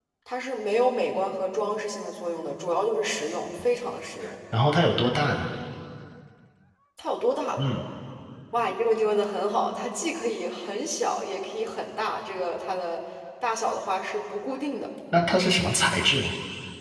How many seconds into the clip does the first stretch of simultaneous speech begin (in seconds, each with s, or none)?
none